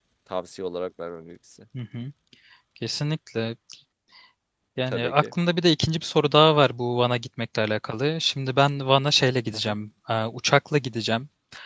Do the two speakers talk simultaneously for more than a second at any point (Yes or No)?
No